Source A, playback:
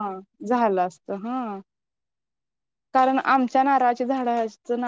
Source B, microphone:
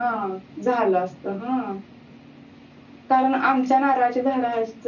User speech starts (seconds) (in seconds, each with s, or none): none